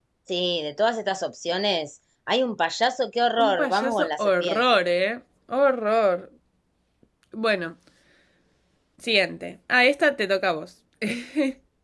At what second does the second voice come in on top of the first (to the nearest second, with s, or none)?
3 s